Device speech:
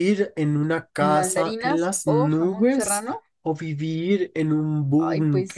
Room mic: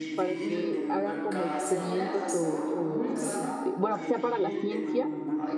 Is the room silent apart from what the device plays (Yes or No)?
No